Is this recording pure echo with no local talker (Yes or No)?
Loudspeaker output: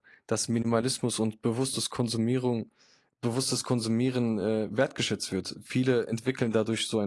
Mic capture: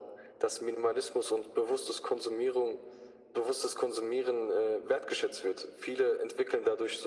Yes